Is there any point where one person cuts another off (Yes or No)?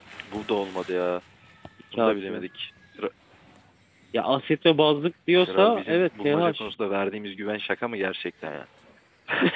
Yes